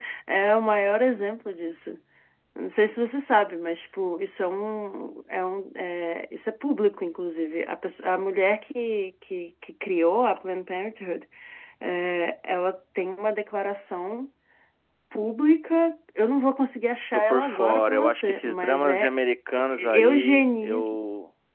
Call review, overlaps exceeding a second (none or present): present